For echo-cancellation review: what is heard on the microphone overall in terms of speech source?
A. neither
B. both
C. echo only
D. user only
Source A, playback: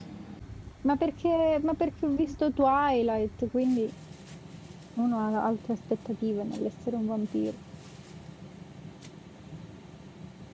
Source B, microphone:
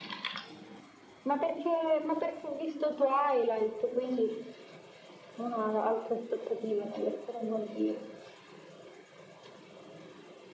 C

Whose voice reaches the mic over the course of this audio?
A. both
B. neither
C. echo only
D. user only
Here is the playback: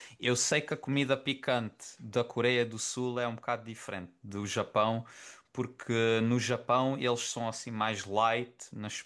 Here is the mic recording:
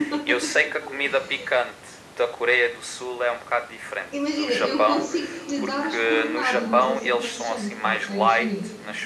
A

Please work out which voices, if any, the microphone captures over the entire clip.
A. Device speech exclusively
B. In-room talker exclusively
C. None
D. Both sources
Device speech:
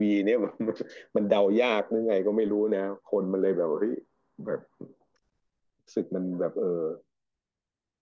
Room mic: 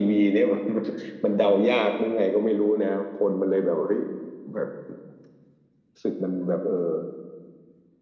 A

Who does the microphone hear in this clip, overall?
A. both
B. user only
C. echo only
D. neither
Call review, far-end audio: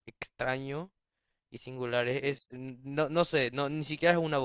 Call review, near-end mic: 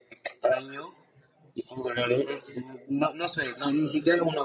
C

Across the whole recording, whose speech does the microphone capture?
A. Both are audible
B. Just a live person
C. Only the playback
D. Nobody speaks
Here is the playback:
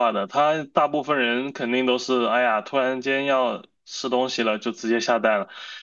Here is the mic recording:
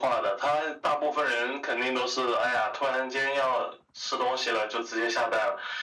C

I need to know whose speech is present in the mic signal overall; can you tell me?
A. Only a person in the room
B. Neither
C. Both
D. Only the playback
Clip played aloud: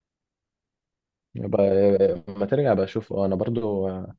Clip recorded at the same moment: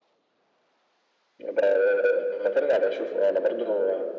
D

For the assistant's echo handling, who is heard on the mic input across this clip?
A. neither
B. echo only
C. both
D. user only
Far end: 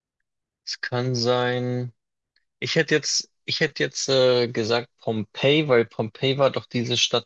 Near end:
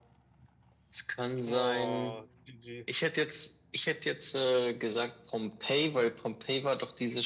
C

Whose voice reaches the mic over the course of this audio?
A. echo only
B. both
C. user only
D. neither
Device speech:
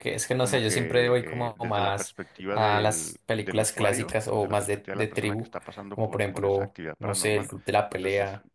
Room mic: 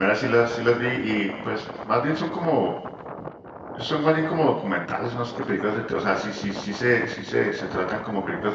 C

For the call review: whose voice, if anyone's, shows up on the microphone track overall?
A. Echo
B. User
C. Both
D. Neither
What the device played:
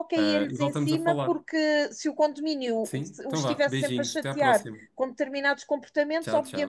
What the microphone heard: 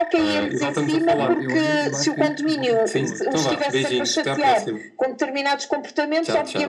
C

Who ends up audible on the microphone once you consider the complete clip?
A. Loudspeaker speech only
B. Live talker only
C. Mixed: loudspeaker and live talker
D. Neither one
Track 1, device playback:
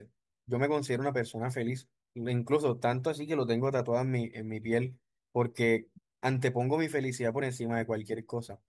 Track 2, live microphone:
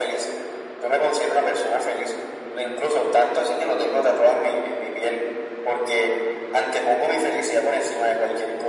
A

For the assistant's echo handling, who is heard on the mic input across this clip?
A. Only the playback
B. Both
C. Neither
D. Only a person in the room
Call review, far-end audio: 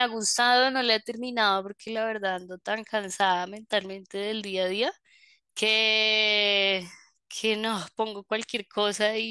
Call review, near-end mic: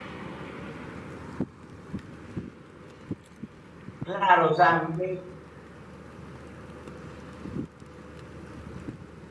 D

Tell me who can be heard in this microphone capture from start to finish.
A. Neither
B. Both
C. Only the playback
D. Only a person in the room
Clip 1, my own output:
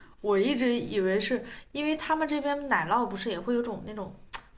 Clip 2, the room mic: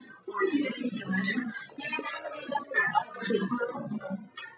C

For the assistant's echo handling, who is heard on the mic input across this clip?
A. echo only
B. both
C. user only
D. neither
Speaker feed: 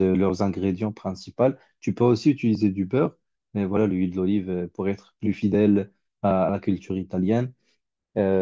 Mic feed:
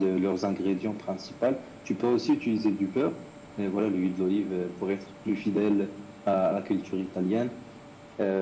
A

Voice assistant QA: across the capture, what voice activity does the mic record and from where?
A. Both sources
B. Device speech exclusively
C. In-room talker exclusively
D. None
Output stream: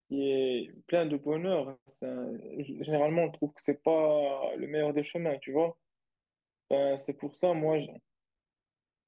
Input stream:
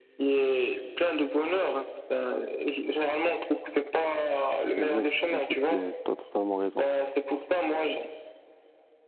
A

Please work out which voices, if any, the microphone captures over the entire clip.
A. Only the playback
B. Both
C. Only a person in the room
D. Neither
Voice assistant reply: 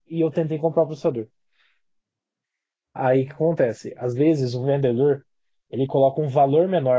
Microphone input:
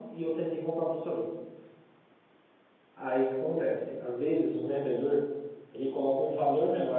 A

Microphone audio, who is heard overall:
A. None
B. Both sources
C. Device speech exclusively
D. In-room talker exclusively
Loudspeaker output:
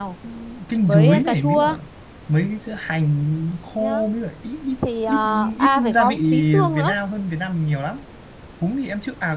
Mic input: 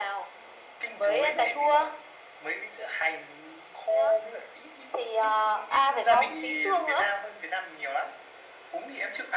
C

